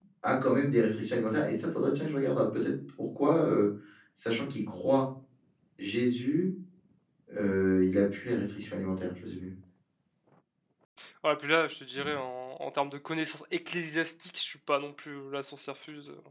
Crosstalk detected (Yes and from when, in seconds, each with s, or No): No